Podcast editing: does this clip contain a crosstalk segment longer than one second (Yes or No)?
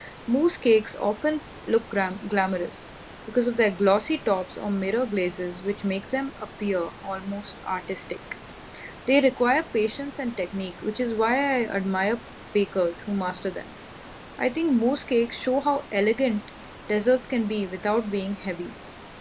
No